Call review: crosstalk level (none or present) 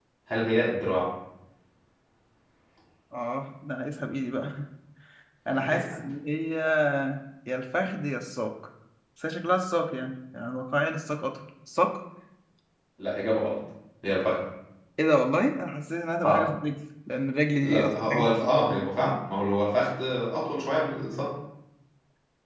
present